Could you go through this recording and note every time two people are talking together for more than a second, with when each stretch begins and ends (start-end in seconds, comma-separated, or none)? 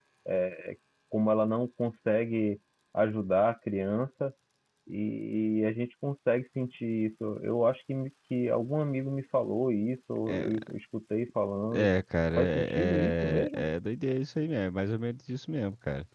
12.4-13.7